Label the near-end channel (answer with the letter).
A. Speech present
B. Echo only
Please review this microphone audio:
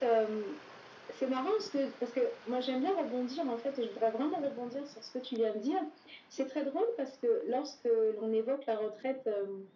B